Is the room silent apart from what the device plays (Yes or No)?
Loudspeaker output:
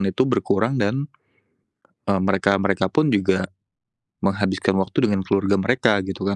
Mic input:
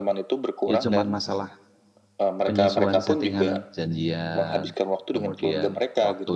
No